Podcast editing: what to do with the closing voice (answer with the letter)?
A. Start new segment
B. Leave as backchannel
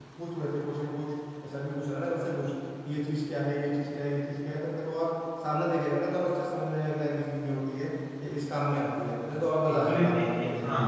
A